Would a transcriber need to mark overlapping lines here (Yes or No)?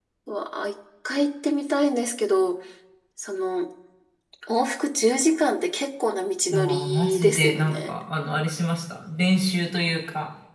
Yes